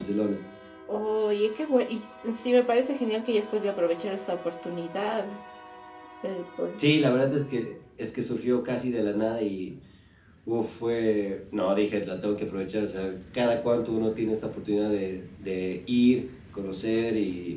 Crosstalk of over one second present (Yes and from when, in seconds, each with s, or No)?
No